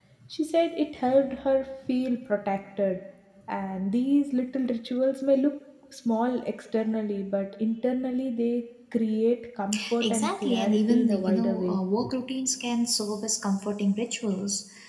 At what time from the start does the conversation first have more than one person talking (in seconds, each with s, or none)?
10.0 s